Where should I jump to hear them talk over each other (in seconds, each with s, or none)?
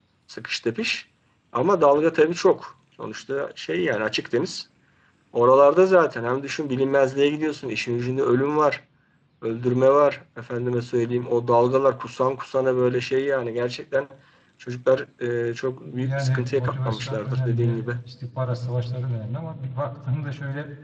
15.8 s